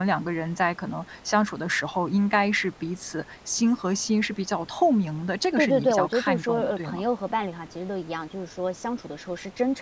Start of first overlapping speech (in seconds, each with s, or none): 5.6 s